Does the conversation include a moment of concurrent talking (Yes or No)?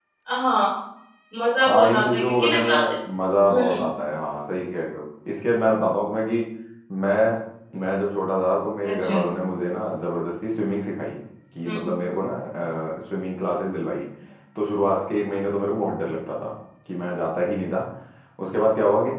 Yes